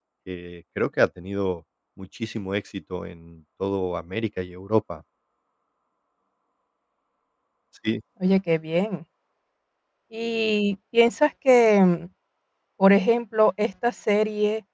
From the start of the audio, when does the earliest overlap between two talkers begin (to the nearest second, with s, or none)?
none